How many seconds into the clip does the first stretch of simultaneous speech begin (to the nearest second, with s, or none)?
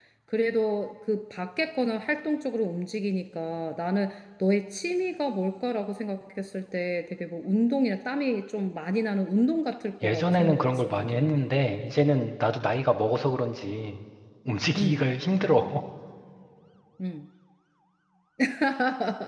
10 s